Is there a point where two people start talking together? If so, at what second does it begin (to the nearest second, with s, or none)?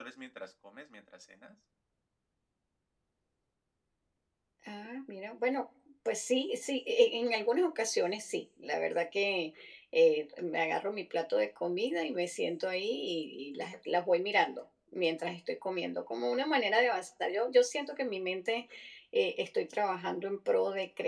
none